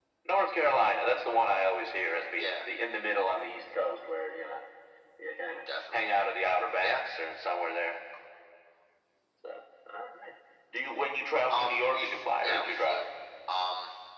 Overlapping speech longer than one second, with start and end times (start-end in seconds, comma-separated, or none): 11.5-13.0